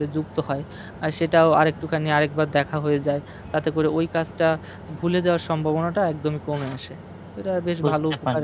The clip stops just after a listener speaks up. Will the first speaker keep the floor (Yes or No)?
No